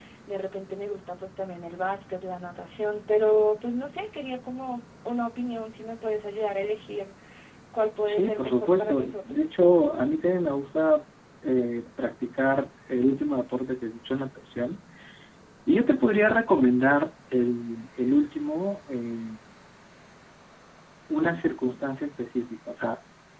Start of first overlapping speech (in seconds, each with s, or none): 8.1 s